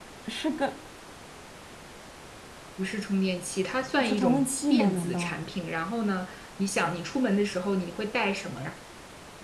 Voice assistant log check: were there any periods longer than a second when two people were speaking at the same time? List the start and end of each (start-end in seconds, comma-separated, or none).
4.0-5.3